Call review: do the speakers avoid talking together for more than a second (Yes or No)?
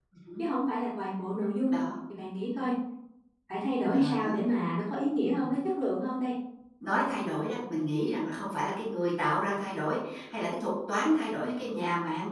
Yes